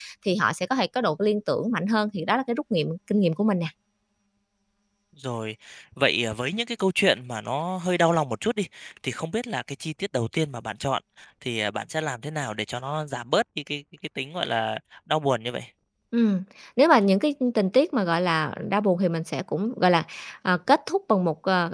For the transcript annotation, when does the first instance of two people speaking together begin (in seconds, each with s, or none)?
none